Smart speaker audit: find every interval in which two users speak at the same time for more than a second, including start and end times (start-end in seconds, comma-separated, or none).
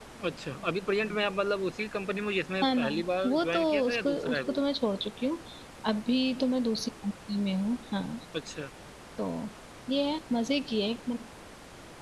3.2-4.6